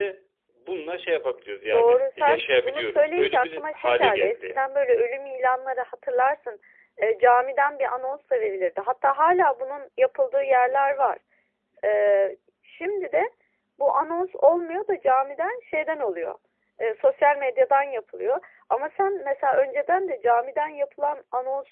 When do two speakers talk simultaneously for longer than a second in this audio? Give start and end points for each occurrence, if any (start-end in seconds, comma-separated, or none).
1.7-4.6